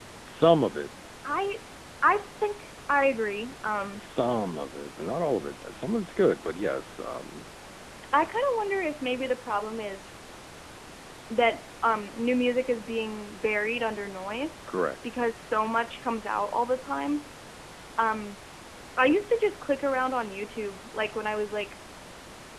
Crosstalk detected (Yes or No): No